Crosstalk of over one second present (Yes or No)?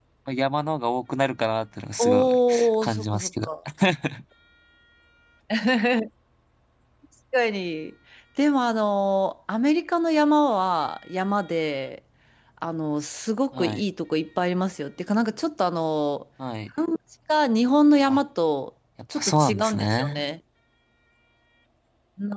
Yes